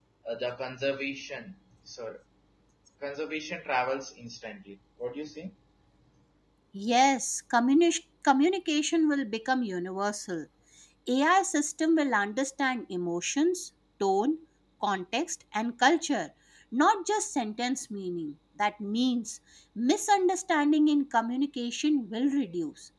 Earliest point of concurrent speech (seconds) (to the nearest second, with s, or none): none